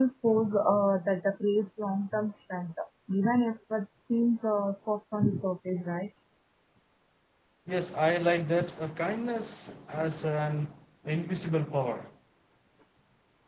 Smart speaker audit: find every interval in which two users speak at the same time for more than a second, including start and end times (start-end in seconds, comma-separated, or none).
none